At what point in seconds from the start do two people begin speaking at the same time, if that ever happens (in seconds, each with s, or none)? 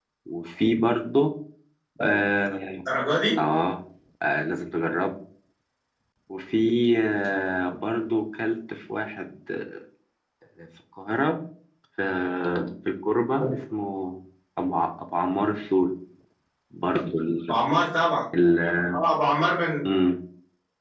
none